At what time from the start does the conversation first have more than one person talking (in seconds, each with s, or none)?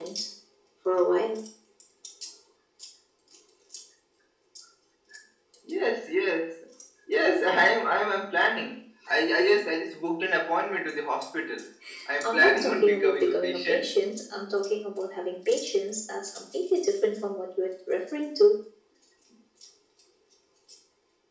12.2 s